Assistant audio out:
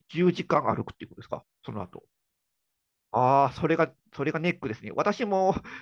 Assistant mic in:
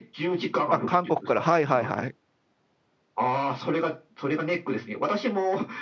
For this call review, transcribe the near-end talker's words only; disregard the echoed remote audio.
あ、韓国から。はいはいはい。

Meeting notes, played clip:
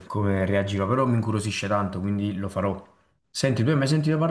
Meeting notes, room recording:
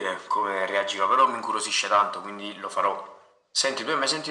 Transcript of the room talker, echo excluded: none

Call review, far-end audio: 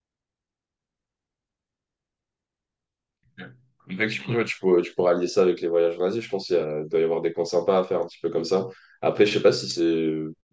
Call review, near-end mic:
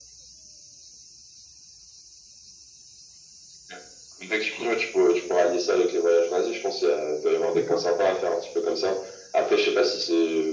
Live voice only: D'accord.

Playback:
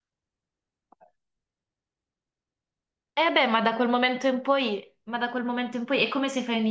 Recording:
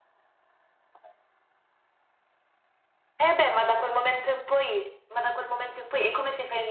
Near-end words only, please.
none

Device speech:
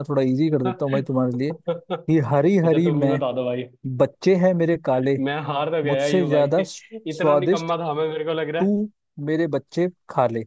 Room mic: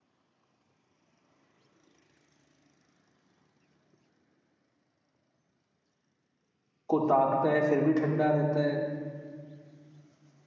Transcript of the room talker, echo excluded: को ताकता है फिर भी ठंडा रहता है

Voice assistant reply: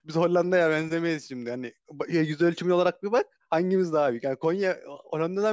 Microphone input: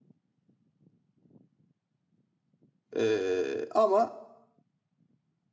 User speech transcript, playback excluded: E, ama

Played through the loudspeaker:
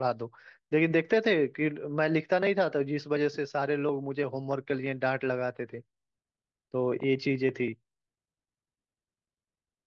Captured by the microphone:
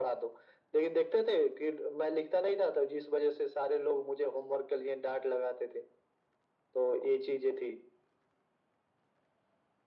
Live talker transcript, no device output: none

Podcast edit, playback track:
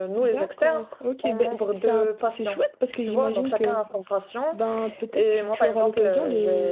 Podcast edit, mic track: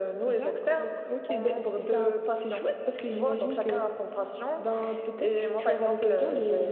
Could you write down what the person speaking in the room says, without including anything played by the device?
none

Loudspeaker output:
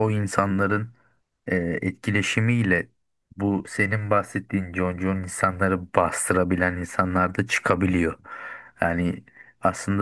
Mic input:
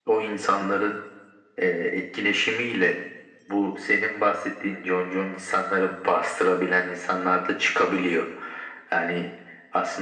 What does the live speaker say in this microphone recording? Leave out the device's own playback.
none

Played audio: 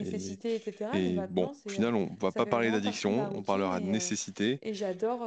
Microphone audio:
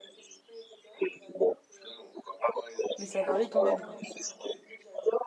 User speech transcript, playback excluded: mais ça varie quand même, quoi.

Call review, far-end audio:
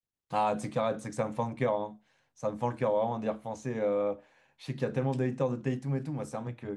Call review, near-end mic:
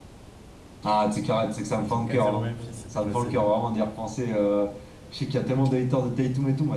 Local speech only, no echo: ils ont 4-0 Memphis, c'était facile.

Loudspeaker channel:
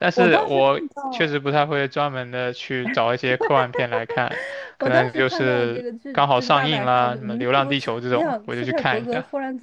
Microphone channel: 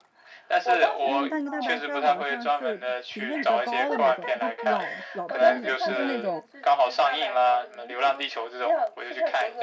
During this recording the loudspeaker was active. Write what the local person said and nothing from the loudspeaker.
但但那个大白鲨好像是评分比较高的那种，就老老片子，不是那种

